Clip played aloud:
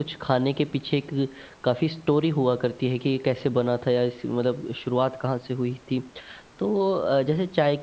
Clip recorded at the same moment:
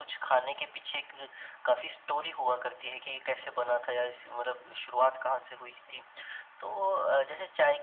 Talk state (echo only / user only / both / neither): echo only